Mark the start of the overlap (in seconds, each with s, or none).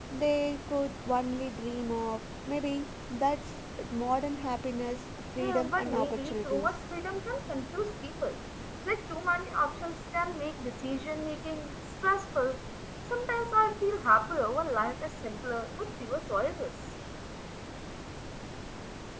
5.4 s